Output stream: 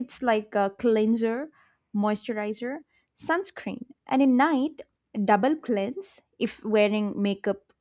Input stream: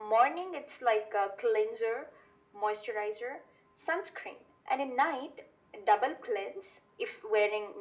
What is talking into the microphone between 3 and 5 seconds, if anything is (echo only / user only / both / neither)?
echo only